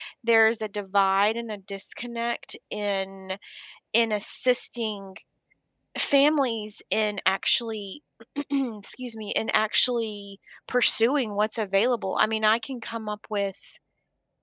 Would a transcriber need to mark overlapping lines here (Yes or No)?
No